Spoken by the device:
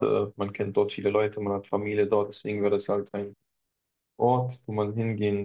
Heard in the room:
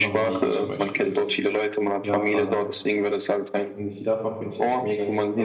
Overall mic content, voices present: both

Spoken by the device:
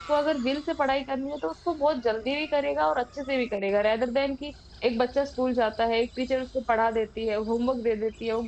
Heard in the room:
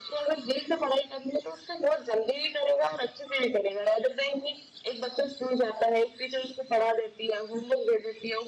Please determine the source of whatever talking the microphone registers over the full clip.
echo only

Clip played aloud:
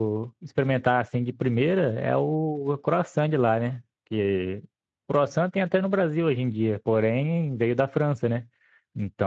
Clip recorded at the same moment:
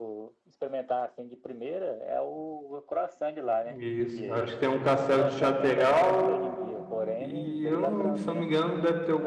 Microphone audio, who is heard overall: both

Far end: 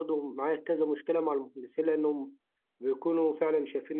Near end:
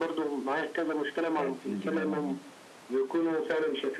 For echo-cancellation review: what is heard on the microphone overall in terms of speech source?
both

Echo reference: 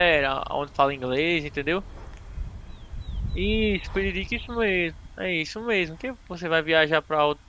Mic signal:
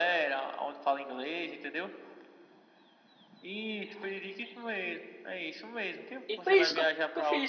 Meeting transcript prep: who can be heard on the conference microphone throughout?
both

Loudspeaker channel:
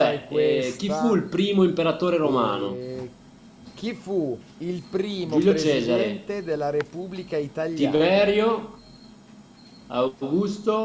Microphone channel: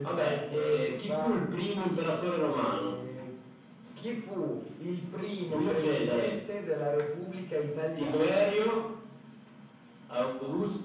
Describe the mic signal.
echo only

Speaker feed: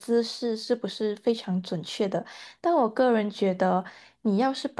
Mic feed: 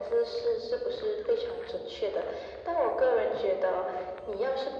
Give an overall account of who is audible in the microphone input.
echo only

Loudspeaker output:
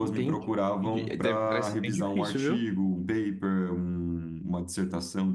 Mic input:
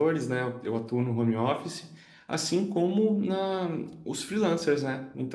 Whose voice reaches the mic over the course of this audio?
user only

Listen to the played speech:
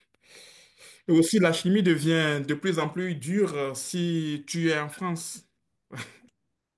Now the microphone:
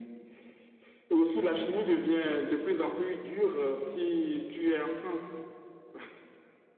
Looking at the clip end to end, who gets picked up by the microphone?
echo only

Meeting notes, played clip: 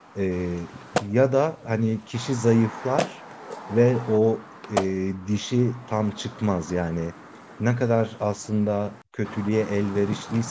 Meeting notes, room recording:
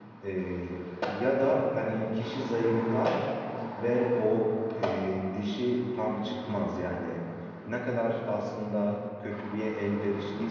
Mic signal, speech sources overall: echo only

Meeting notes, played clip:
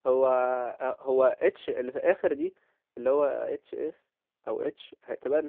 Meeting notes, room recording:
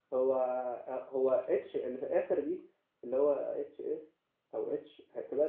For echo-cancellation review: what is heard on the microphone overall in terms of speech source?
echo only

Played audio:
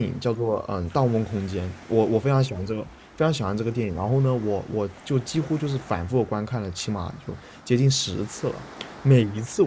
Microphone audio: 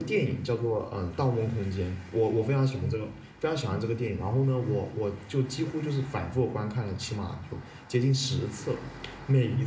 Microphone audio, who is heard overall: echo only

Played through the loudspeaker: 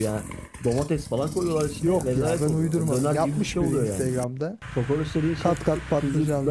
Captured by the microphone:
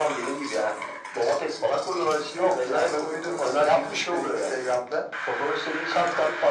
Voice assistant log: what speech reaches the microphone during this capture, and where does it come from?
echo only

